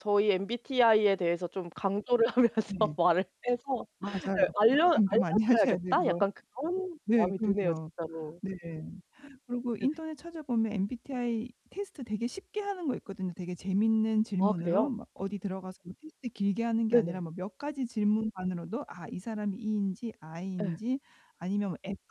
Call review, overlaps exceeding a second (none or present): present